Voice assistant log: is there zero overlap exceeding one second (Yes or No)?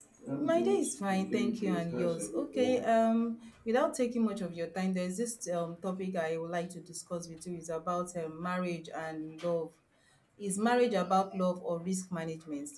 No